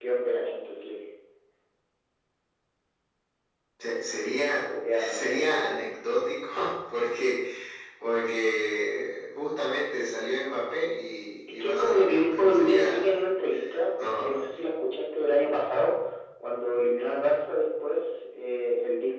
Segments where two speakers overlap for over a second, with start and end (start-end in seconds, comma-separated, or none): 4.7-5.9, 11.6-13.3